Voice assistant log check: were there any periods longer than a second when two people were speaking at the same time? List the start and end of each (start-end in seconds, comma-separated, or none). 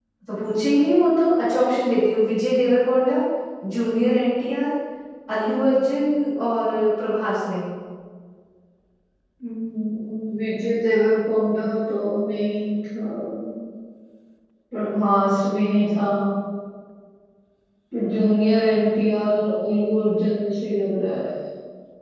none